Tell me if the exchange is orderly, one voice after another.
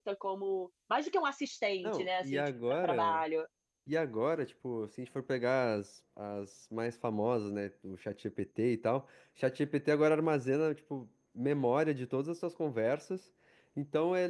No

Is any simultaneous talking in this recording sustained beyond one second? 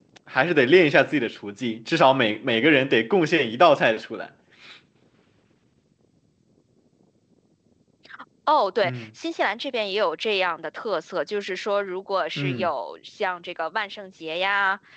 No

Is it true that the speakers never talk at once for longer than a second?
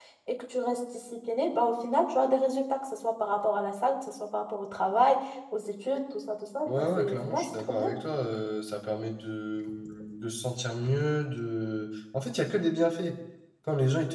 No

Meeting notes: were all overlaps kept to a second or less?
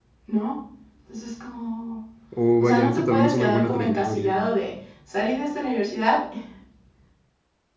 No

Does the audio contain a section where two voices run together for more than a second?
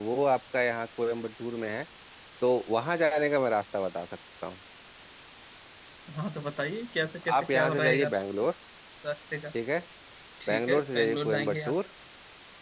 Yes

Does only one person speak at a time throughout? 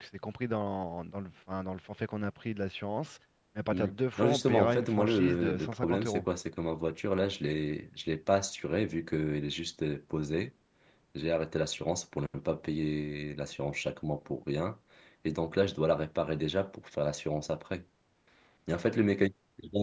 No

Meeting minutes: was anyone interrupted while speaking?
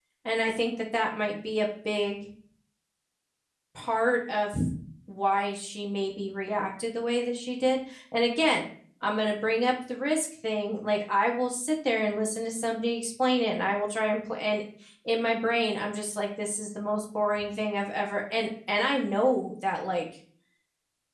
No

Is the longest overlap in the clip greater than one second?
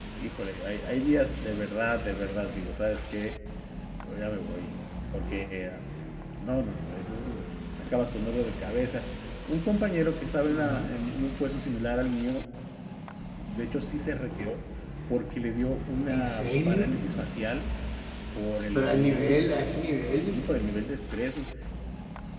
Yes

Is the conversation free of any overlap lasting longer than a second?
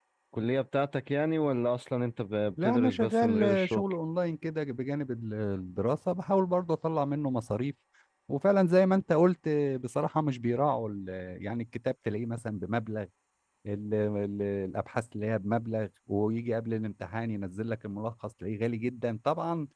No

